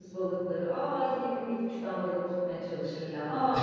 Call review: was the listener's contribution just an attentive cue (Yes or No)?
No